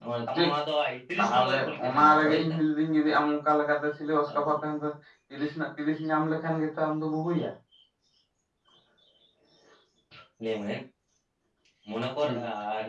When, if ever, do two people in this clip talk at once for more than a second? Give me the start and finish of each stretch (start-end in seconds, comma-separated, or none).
1.2-2.6